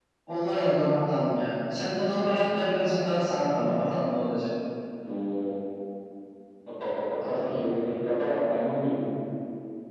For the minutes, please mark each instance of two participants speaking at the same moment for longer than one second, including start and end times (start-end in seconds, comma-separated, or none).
2.9-4.1